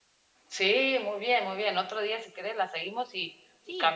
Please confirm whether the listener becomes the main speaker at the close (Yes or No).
No